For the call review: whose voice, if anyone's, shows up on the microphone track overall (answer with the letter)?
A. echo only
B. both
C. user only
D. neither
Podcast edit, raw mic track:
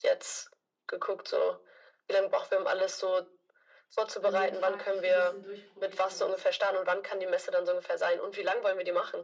B